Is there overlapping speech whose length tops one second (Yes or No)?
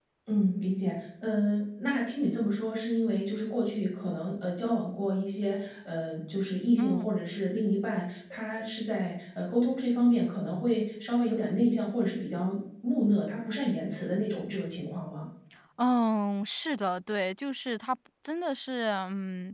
No